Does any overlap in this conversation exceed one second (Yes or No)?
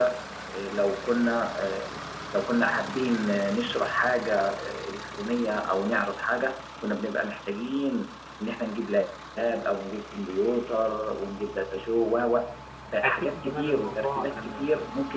Yes